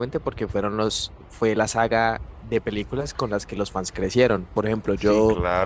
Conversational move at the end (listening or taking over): taking over